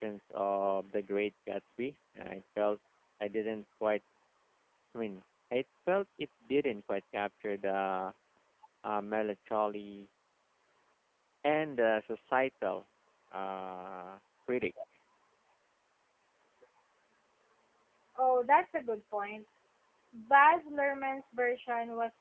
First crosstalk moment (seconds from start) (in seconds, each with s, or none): none